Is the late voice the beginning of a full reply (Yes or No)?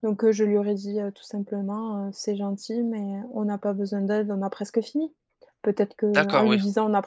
No